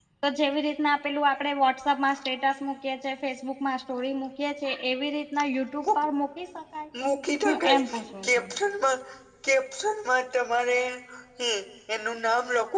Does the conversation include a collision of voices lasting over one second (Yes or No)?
No